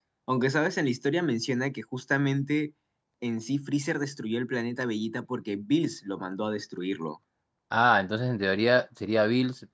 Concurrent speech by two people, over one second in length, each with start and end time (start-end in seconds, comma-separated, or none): none